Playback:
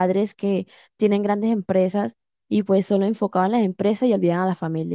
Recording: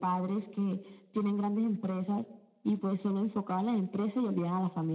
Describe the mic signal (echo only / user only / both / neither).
echo only